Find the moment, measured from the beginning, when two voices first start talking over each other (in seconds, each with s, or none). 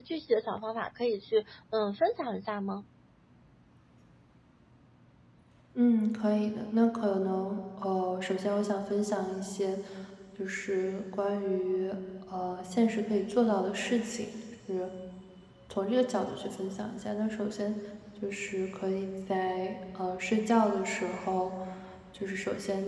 none